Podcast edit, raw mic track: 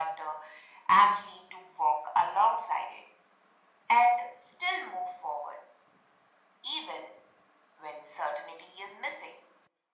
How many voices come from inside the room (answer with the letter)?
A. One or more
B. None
B